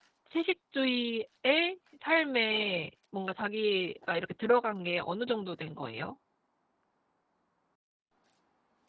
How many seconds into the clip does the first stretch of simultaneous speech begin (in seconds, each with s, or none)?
none